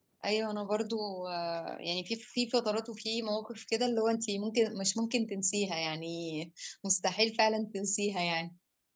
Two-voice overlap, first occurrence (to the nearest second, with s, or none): none